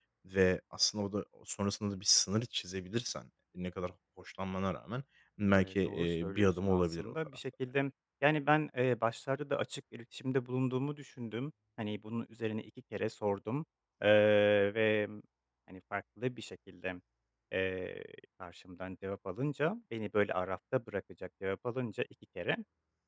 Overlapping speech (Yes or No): Yes